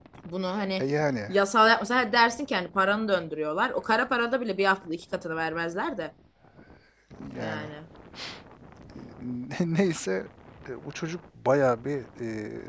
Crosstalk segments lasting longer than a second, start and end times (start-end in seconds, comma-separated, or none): none